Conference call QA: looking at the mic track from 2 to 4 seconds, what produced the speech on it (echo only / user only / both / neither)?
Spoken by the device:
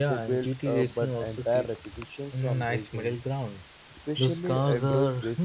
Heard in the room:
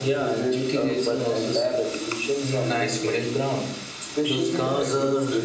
echo only